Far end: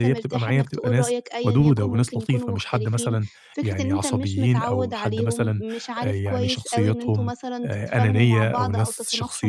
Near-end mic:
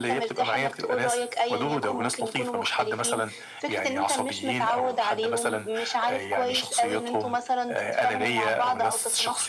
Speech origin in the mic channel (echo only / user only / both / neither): echo only